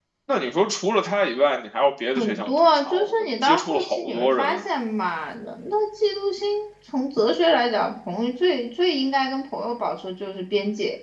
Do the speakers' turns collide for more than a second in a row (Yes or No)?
Yes